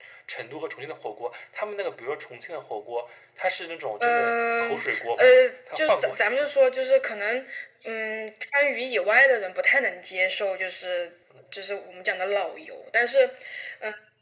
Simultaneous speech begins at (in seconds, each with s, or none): 4.0 s